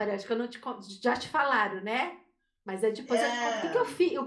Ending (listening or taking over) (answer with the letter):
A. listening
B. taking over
A